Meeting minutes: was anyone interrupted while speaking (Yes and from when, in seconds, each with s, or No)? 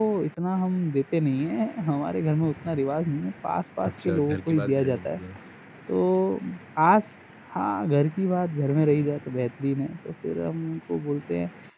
Yes, from 3.8 s